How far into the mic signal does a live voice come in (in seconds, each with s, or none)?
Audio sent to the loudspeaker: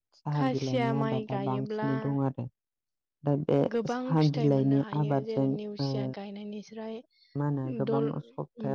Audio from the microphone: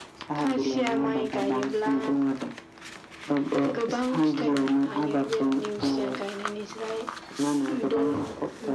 none